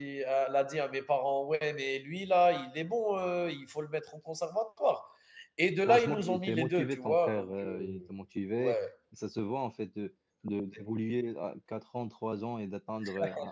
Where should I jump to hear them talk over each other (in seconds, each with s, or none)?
5.9 s